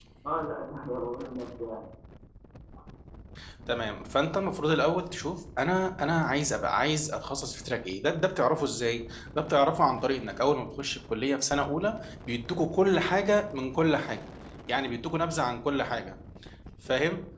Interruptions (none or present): none